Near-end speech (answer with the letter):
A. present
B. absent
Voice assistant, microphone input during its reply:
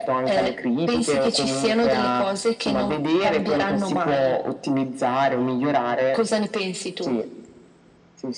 B